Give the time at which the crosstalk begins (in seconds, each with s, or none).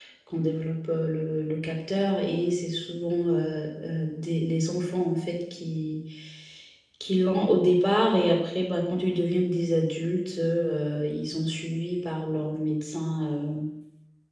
none